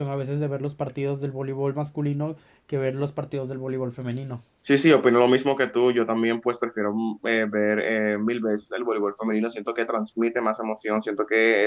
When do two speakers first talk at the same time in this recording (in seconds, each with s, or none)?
none